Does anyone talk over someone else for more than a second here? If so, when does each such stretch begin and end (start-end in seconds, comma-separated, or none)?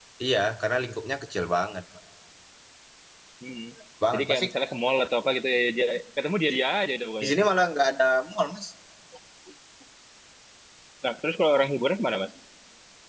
none